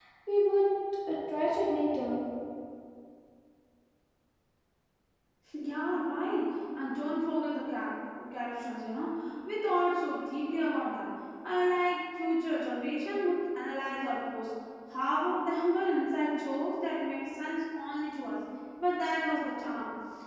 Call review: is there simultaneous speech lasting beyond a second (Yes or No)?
No